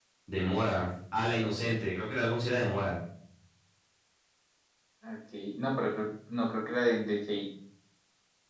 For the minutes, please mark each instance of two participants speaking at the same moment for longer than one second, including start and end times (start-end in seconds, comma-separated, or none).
none